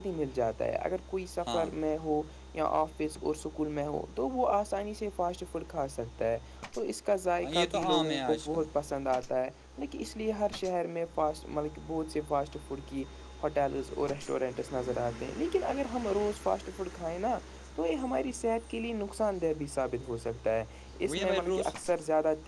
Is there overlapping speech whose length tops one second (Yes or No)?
Yes